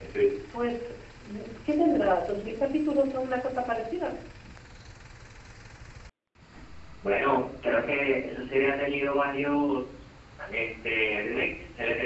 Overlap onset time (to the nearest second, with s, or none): none